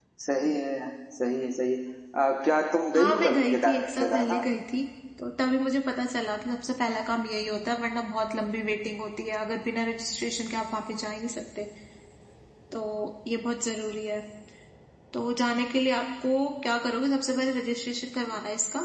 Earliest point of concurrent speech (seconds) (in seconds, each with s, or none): 3.0 s